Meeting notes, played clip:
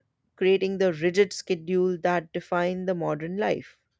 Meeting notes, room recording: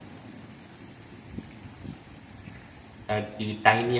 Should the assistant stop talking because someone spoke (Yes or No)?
Yes